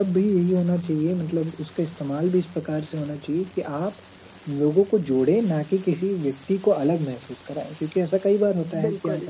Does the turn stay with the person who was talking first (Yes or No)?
Yes